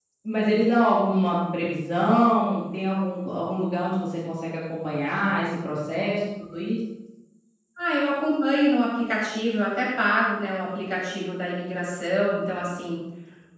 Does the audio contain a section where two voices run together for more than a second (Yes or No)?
No